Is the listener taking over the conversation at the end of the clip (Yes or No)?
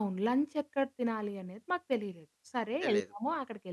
No